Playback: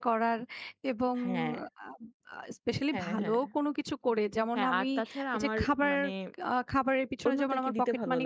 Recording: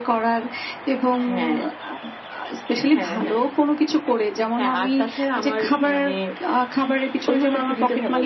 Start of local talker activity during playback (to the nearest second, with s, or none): none